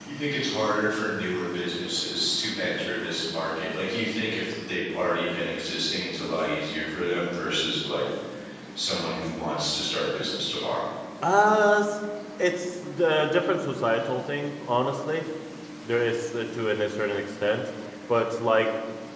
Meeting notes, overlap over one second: none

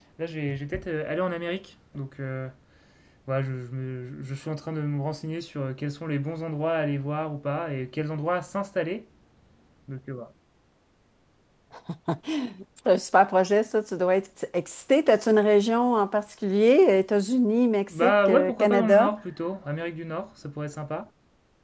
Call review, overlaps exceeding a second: present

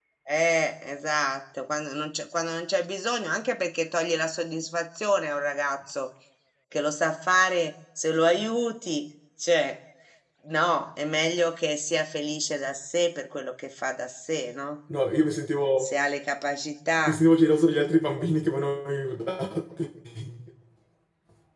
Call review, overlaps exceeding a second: none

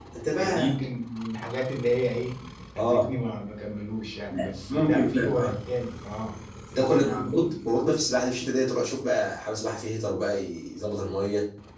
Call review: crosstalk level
present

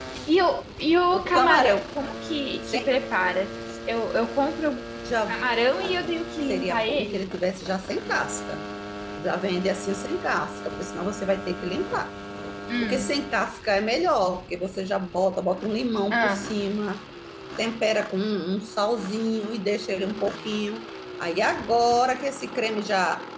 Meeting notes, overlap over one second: present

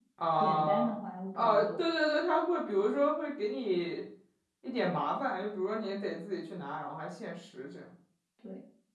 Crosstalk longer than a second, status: none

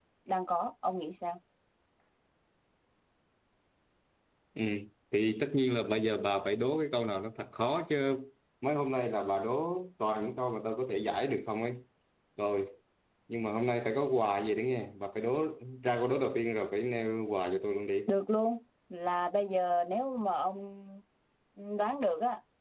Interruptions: none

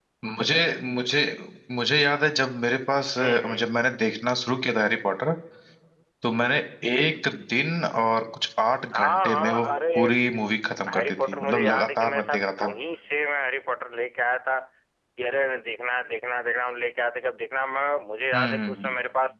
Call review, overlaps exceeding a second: present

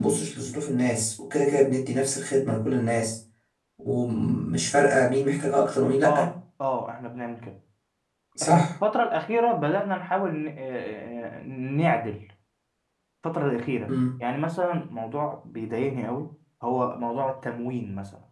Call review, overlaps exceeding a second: none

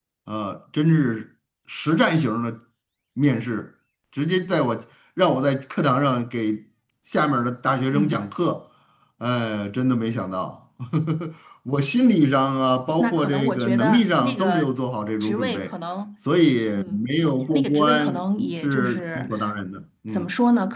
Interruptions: present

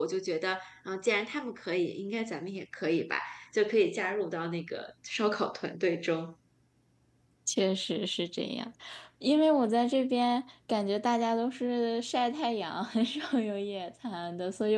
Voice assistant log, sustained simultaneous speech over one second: none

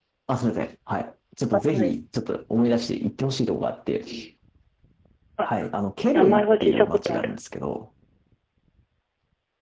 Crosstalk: present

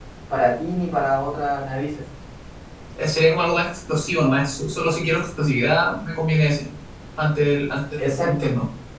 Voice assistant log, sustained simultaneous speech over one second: none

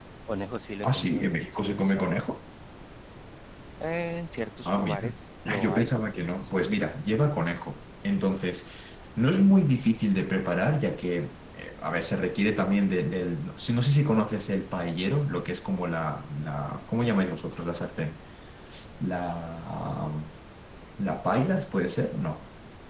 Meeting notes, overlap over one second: present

